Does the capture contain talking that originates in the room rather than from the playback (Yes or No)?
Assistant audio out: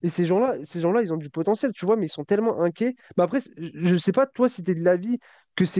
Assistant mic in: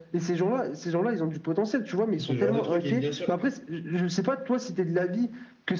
Yes